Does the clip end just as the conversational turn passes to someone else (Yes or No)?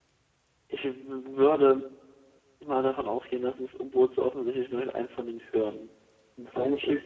Yes